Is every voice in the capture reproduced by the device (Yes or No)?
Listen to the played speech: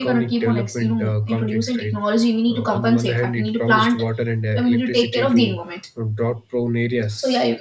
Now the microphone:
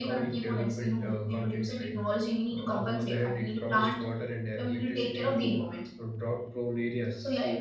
Yes